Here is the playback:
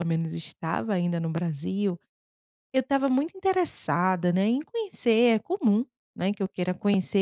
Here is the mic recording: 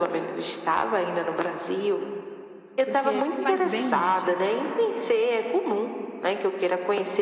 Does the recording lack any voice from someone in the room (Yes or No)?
No